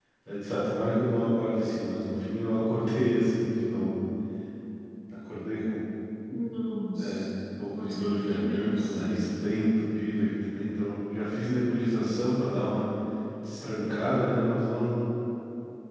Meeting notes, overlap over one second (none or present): present